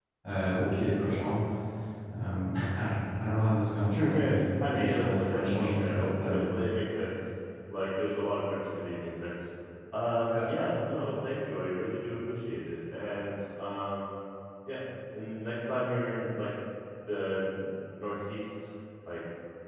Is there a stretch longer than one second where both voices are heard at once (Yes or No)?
Yes